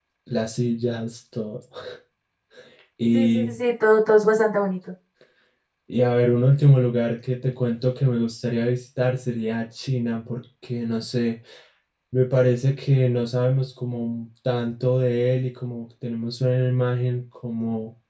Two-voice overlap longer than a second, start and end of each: none

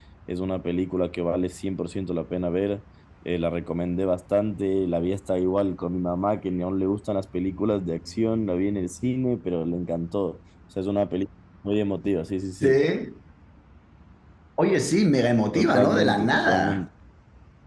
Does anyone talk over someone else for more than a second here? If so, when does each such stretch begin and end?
15.5-16.9

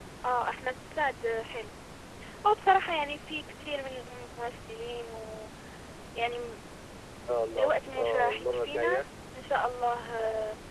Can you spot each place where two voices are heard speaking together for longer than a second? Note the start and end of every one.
7.6-9.0

